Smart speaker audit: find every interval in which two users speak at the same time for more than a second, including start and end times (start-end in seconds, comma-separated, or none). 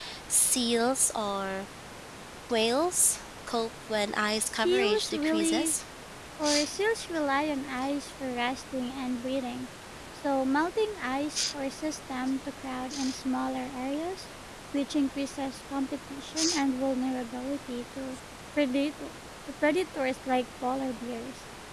4.3-5.7